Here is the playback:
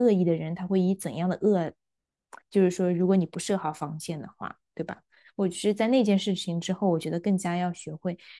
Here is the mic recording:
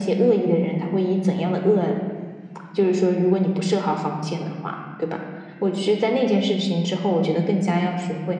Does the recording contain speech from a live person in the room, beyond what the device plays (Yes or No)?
No